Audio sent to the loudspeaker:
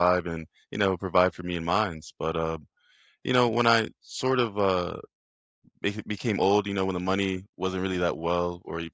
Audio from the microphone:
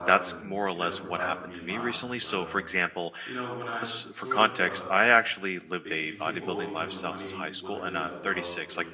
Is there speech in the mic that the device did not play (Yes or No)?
Yes